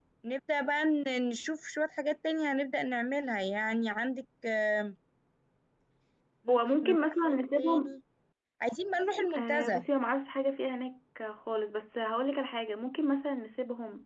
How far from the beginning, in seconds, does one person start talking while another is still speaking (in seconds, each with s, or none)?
6.5 s